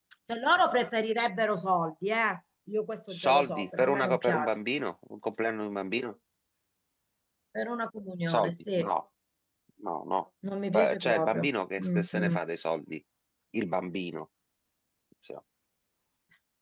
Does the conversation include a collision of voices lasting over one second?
Yes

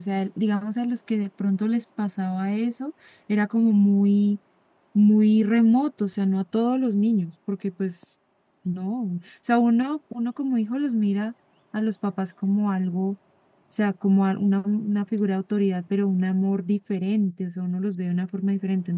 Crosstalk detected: No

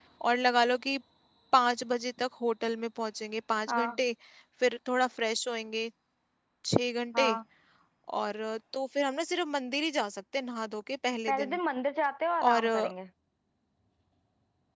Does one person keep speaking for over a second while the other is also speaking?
No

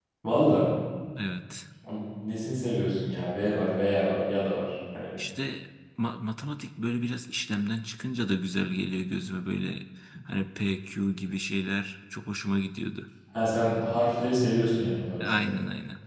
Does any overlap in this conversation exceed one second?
No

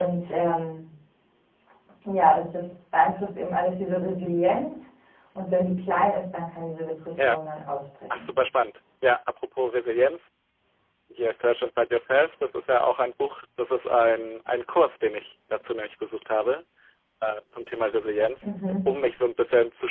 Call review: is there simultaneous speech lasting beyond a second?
No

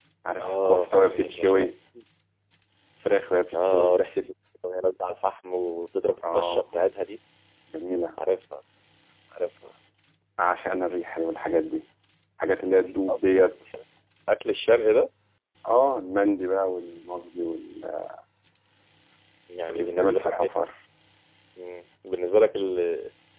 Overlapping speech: Yes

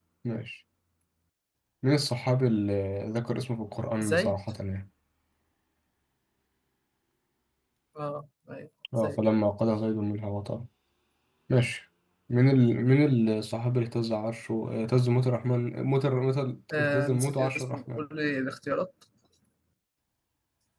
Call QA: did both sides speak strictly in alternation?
No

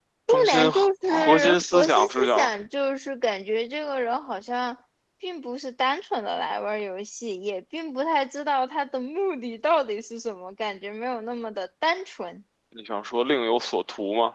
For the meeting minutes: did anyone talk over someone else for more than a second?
Yes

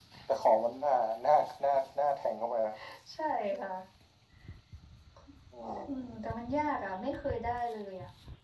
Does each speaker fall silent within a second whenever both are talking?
Yes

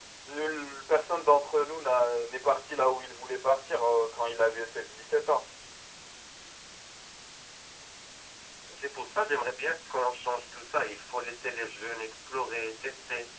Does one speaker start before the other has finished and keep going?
No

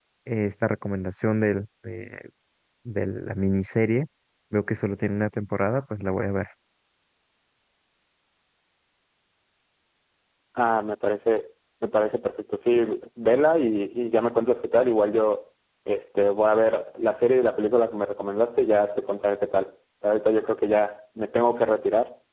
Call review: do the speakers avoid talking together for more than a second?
Yes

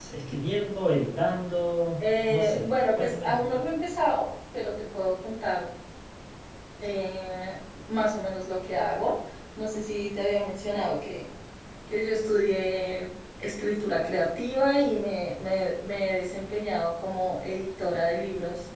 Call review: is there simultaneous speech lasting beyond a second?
Yes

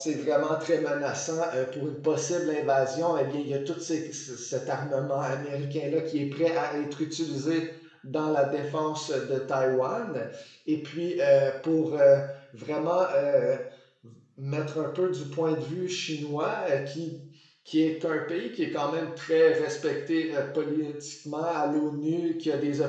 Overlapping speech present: No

